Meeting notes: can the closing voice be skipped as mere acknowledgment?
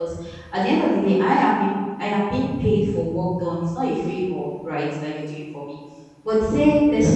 Yes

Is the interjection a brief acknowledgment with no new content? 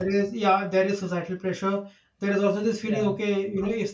Yes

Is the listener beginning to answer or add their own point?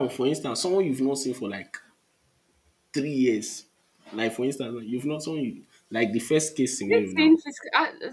Yes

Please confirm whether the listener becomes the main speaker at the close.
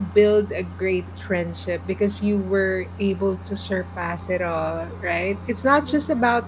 No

